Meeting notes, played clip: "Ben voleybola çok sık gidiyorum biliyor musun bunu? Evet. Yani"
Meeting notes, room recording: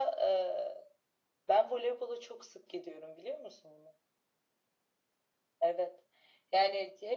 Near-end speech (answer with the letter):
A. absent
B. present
A